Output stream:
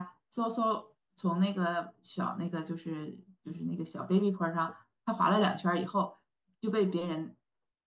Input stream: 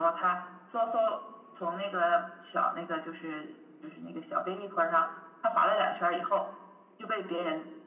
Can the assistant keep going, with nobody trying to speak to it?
Yes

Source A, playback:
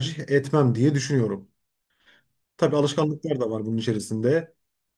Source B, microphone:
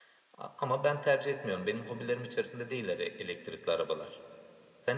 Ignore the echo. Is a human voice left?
Yes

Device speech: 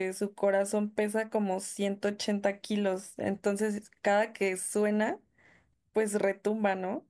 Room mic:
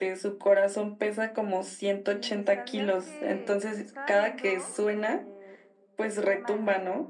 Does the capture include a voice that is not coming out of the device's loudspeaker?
Yes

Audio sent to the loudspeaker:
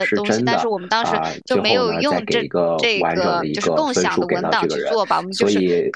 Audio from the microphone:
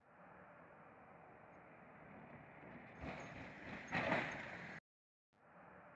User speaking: No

